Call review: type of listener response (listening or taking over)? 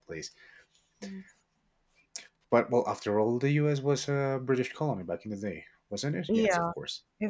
taking over